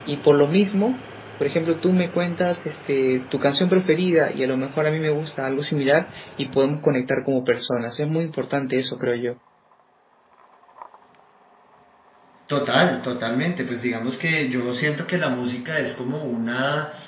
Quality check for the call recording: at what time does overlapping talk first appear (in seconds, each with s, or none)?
none